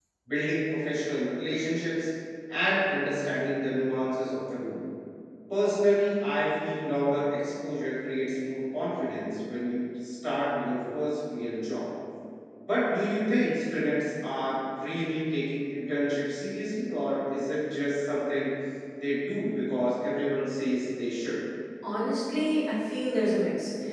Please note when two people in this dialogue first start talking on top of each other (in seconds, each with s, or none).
none